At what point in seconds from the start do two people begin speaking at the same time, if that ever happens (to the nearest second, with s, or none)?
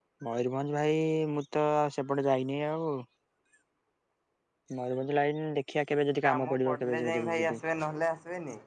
6 s